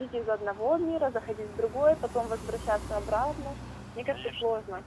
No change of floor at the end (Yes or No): No